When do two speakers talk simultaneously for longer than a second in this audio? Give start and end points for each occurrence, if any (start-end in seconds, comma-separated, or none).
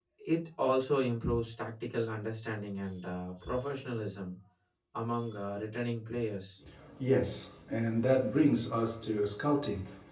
none